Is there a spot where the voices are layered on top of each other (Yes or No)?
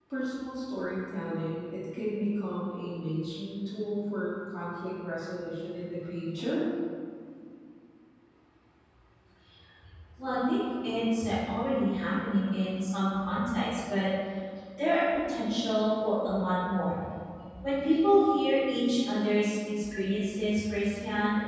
No